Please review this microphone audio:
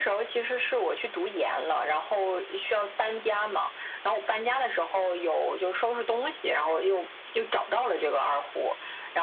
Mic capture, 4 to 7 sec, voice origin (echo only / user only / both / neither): echo only